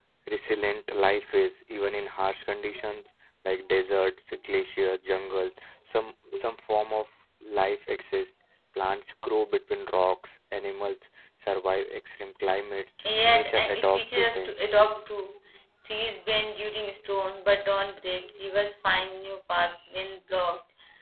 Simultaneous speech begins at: 13 s

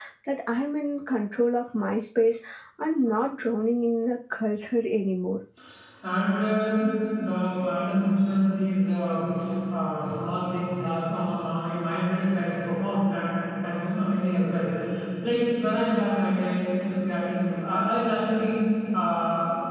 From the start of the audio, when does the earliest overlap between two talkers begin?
none

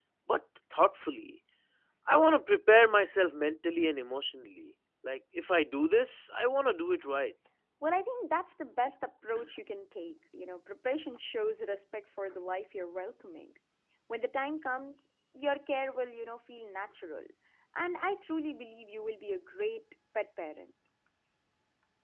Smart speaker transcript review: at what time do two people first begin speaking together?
none

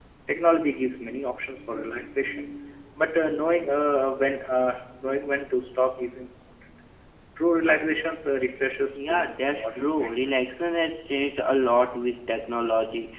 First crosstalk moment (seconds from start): 9 s

